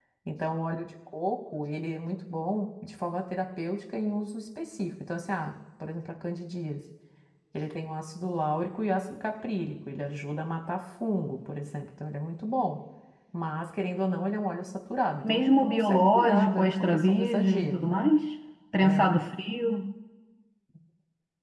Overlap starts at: 15 s

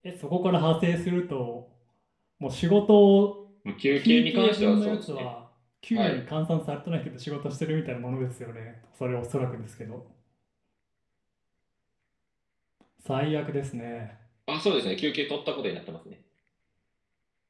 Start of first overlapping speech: 4 s

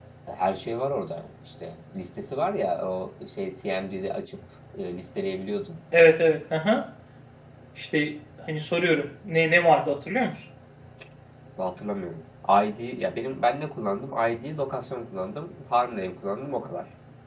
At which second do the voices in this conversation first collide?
none

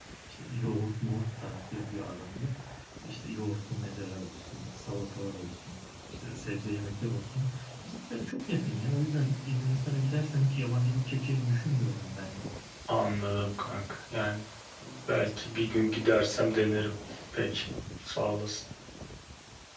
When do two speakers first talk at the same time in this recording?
none

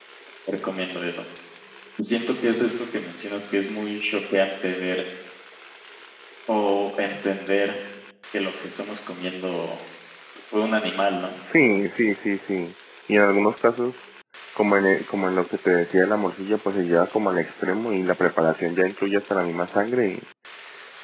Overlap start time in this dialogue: none

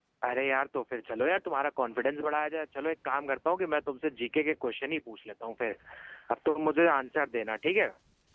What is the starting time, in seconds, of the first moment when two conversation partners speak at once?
none

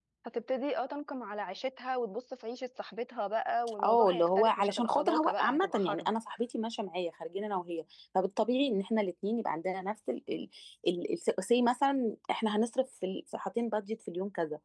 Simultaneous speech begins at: 4 s

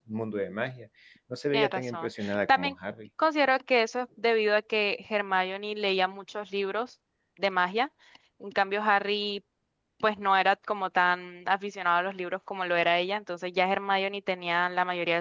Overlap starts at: 2 s

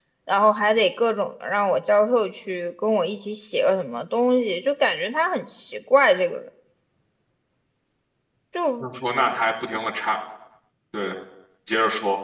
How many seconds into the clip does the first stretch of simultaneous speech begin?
none

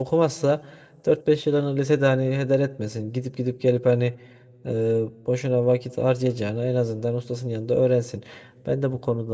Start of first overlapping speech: none

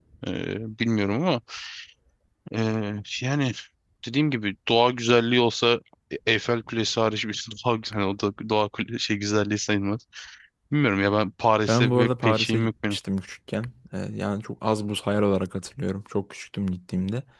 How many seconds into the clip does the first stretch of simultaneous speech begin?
12 s

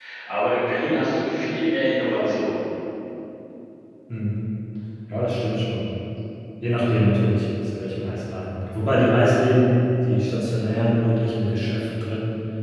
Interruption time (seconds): none

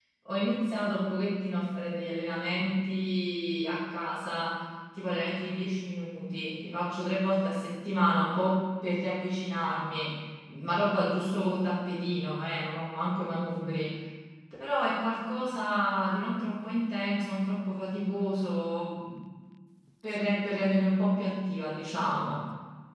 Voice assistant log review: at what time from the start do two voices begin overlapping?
none

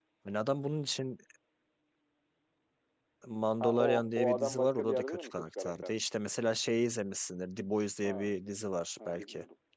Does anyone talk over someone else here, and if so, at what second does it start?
4 s

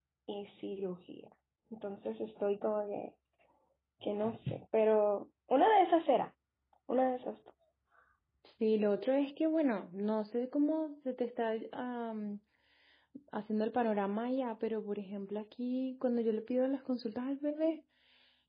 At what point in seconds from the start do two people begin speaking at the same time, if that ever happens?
none

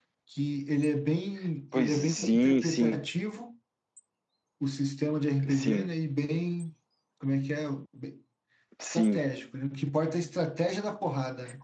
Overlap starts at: 2 s

